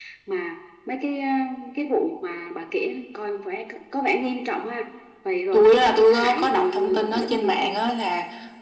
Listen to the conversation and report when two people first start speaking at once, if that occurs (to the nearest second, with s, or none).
6 s